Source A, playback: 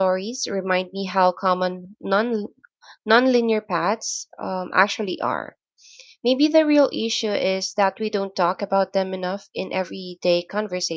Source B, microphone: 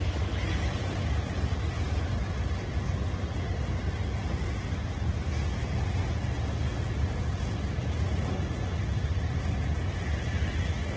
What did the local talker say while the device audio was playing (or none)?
none